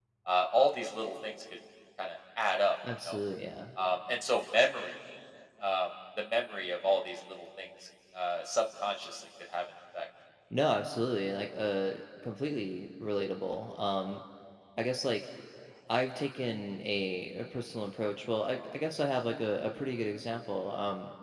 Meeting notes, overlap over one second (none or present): none